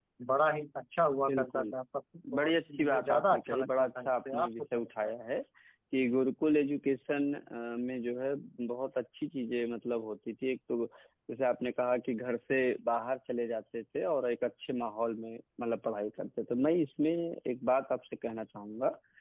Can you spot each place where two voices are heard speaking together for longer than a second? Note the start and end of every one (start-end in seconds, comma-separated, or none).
2.3-5.1